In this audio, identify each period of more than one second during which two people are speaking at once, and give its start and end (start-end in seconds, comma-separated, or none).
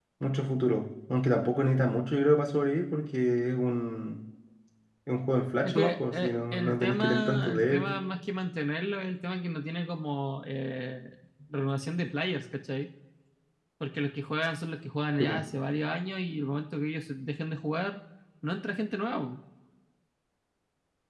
5.6-7.9